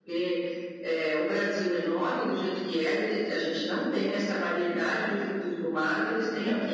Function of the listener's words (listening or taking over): listening